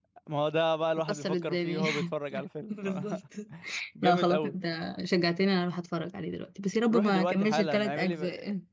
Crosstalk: present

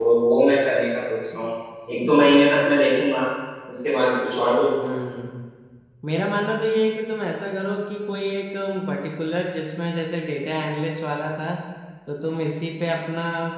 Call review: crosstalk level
none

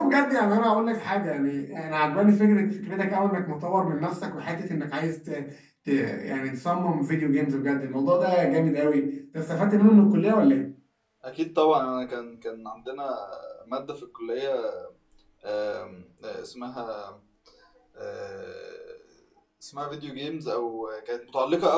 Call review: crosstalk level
none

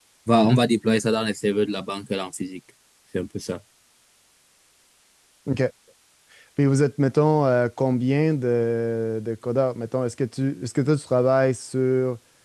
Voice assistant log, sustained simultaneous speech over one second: none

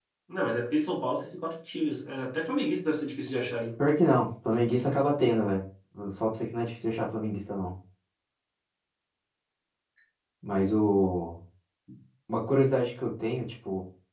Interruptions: none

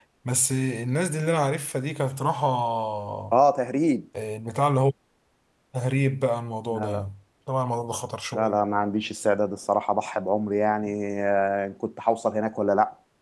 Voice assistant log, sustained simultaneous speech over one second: none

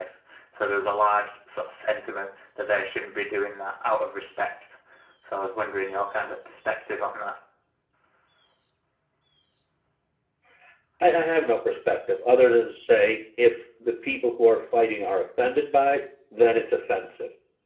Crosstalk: none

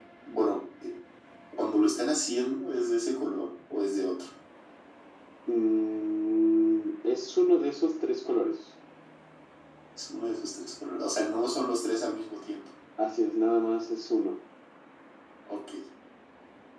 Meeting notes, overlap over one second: none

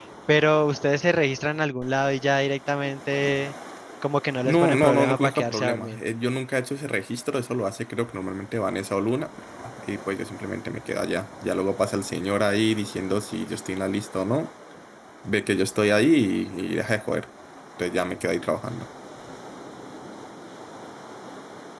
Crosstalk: present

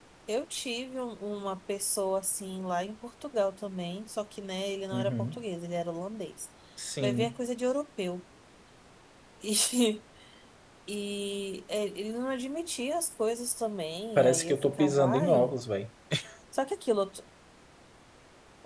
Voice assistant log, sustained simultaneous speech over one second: present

